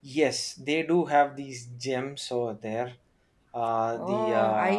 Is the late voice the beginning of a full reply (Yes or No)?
Yes